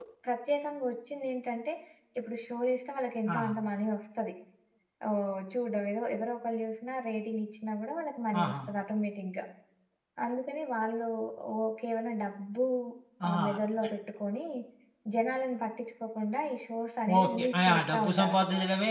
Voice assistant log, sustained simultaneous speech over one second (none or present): present